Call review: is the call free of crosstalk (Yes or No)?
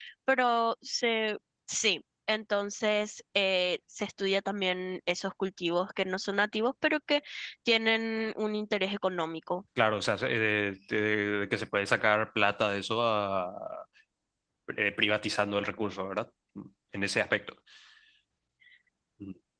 Yes